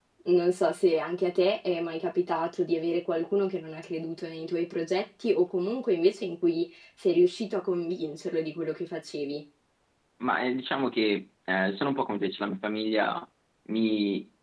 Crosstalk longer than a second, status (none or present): none